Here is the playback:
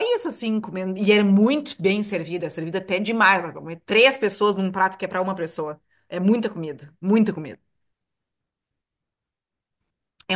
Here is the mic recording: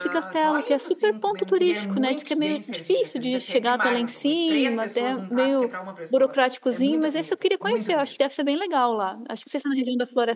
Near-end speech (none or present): present